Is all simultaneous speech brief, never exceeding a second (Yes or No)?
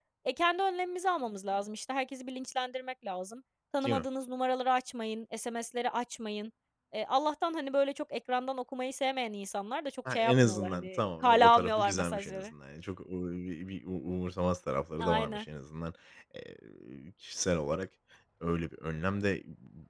No